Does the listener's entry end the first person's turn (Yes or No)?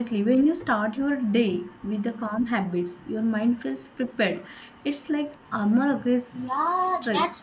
Yes